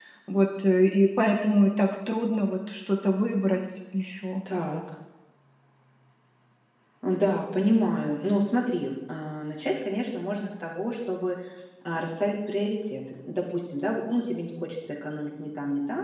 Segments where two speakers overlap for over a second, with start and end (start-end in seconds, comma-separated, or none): none